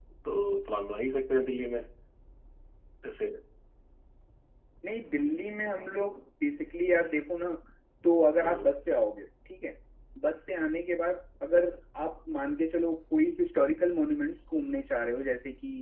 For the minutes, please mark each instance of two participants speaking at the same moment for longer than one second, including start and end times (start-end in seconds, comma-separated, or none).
none